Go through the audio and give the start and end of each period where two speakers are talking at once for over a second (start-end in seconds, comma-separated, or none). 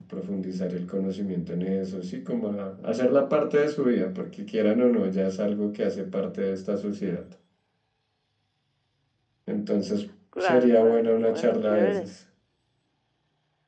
10.4-12.1